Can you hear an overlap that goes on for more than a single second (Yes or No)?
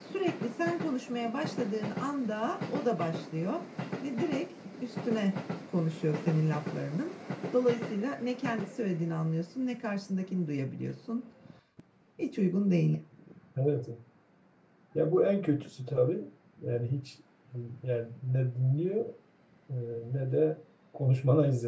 No